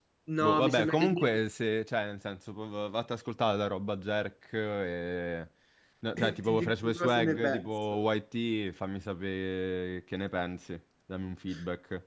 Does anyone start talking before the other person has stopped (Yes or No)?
Yes